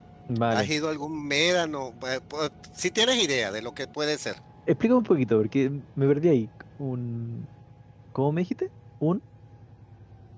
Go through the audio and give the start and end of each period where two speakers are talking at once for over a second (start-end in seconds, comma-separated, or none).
none